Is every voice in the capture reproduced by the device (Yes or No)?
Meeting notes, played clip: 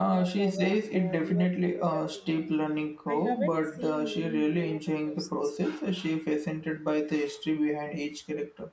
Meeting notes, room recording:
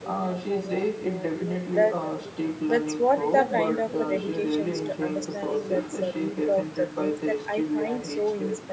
No